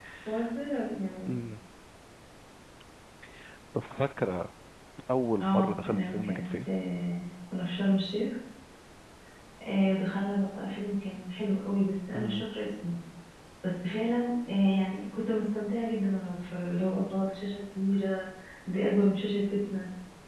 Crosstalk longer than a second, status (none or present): present